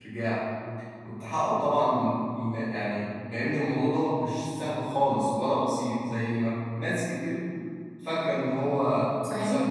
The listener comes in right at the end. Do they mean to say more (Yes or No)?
Yes